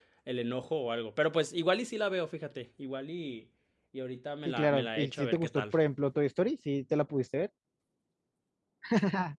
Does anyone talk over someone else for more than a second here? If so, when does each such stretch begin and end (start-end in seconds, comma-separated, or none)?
4.5-5.8